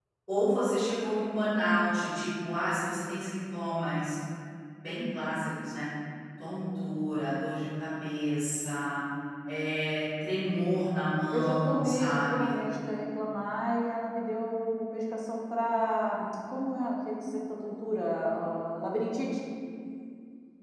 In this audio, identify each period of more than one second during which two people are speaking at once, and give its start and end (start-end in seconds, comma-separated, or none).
11.3-12.6